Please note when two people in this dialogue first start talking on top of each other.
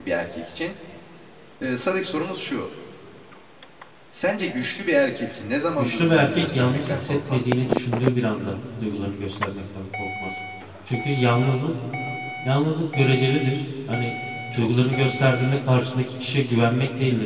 5.8 s

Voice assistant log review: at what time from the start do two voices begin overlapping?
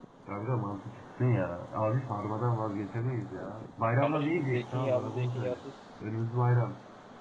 4.0 s

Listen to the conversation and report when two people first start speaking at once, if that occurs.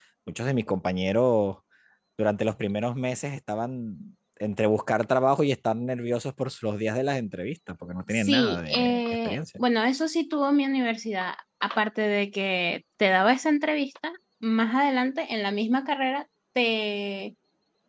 8.1 s

